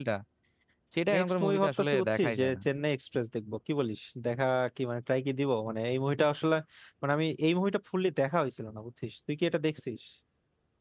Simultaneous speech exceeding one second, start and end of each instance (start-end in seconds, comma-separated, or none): 1.1-2.6